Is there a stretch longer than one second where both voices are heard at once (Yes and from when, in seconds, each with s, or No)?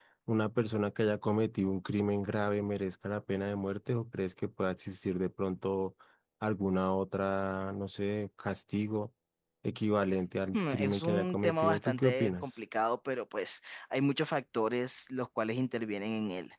Yes, from 10.5 s